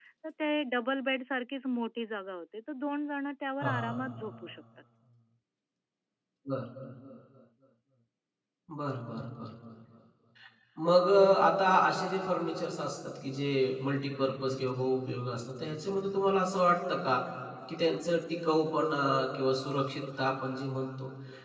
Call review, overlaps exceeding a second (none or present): none